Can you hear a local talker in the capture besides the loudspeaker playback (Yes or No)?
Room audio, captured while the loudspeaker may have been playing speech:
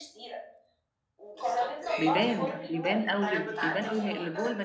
Yes